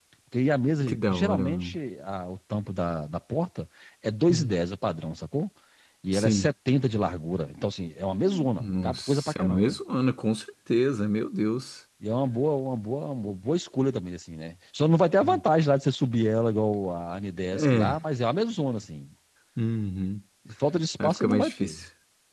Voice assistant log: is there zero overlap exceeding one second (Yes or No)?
No